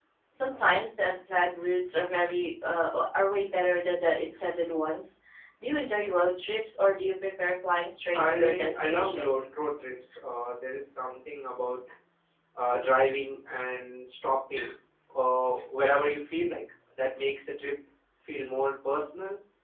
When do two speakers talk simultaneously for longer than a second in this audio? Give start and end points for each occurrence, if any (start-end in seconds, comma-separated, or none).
8.1-9.4